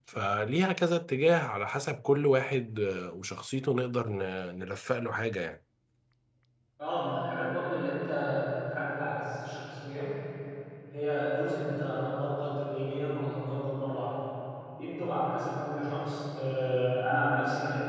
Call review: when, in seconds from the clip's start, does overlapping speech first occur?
none

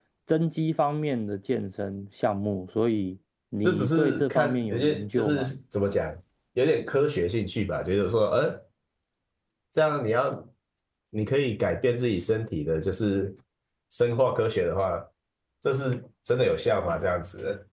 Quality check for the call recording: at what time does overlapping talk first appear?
3.6 s

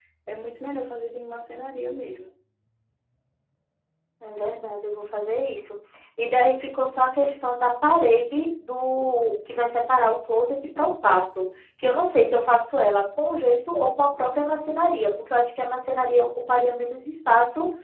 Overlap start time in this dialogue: none

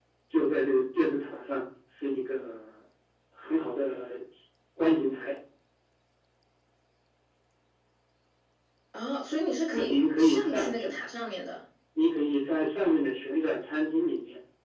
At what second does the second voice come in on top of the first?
9.7 s

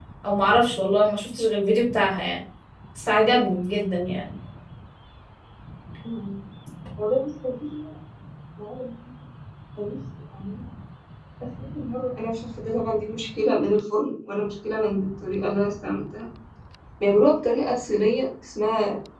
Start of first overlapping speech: none

